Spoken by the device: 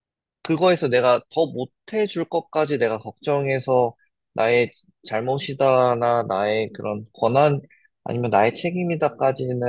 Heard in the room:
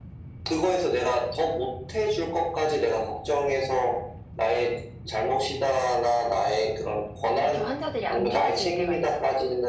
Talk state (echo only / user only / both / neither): both